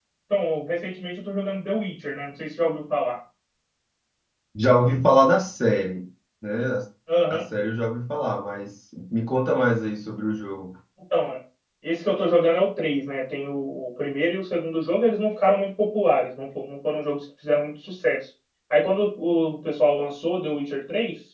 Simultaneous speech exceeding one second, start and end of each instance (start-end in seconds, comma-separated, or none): none